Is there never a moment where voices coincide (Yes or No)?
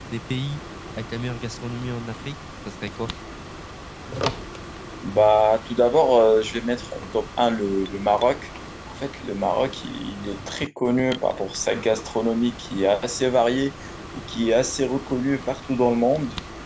Yes